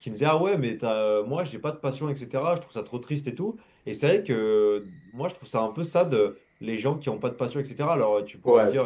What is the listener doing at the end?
listening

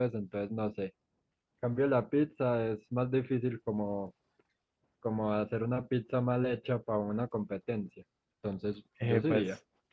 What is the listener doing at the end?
taking over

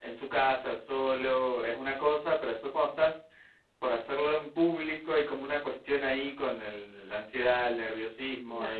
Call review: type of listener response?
listening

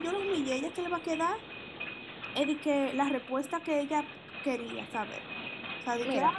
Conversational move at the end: listening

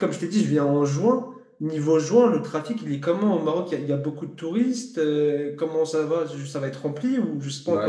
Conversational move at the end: taking over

